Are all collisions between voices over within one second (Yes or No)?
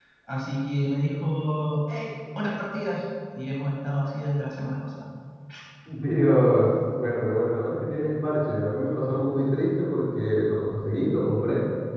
Yes